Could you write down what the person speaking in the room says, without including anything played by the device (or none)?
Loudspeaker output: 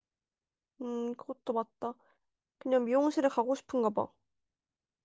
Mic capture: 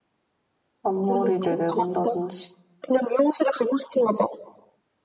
앞머리를 내본다든지,